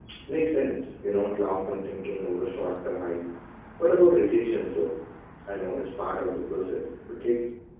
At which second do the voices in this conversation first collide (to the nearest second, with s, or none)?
none